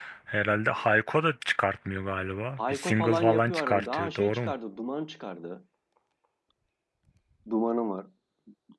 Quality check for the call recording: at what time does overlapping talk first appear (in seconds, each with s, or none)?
2.6 s